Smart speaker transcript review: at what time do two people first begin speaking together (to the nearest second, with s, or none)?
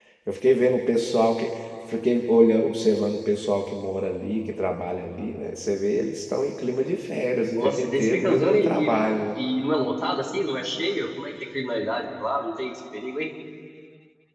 7 s